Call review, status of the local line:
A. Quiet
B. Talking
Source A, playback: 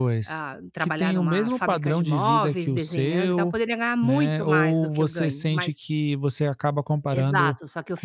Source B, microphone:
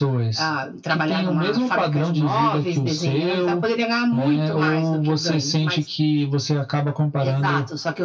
A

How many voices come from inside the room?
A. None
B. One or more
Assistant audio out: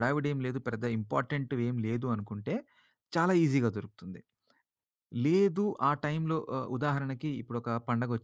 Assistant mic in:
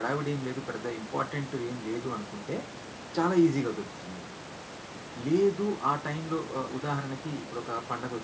A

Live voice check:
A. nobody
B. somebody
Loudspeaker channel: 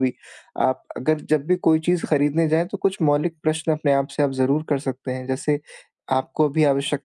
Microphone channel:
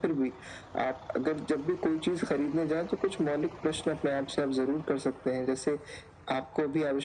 A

